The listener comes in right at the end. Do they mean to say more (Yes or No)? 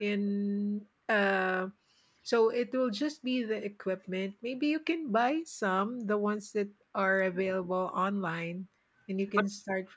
Yes